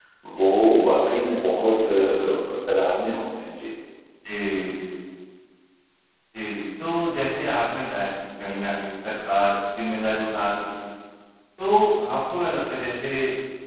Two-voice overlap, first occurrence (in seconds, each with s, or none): none